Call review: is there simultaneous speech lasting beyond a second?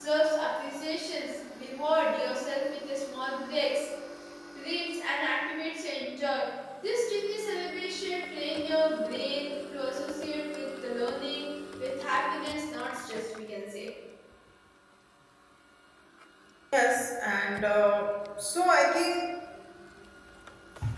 No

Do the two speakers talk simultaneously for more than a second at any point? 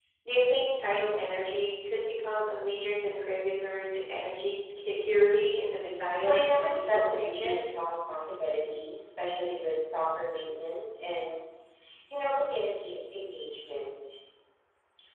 Yes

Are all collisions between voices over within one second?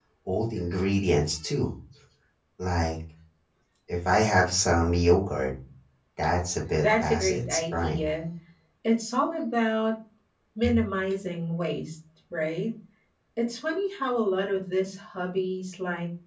No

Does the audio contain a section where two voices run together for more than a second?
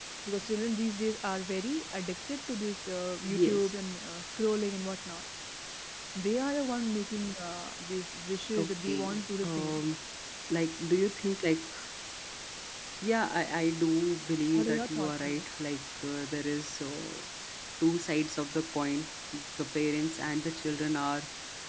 Yes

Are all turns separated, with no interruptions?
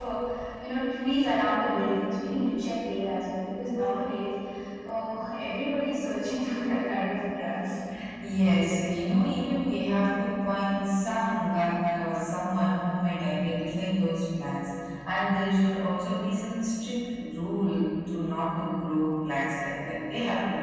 Yes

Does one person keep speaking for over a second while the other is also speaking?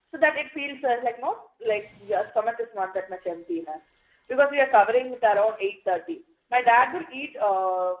No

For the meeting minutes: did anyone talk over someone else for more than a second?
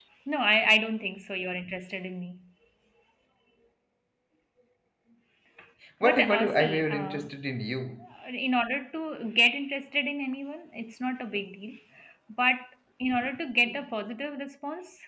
Yes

